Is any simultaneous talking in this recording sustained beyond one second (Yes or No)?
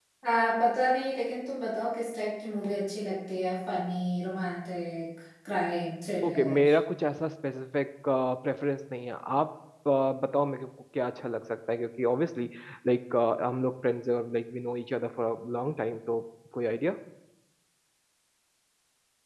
No